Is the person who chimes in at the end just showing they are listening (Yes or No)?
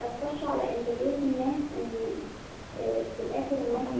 No